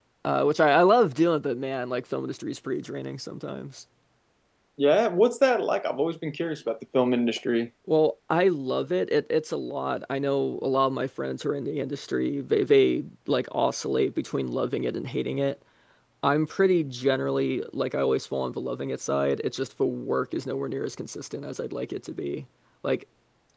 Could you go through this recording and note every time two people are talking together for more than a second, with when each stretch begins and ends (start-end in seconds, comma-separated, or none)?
none